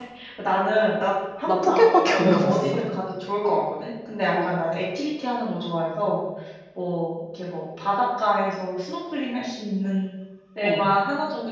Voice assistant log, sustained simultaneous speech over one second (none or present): present